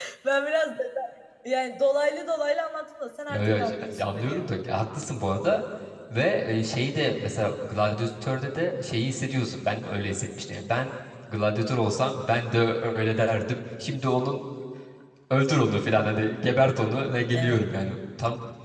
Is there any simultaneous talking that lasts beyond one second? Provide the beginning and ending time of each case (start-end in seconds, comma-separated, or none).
3.3-4.5